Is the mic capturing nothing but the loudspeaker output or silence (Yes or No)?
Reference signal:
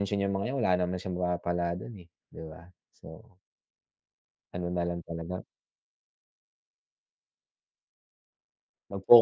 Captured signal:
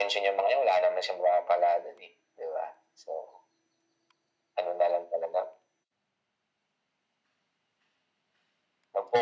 Yes